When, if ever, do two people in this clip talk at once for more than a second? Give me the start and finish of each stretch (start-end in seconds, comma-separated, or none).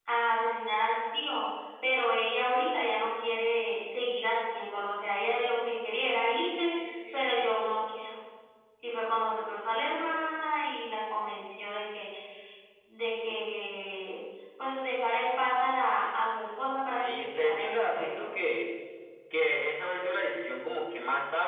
17.1-18.3